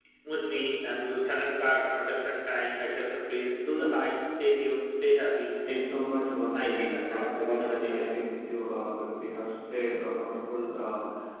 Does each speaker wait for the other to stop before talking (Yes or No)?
No